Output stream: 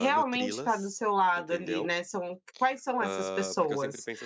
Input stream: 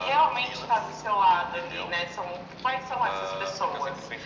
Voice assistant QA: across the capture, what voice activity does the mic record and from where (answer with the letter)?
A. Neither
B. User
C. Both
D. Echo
D